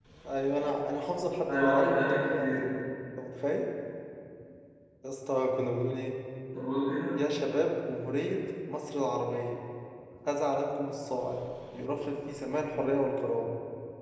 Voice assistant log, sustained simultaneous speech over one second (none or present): present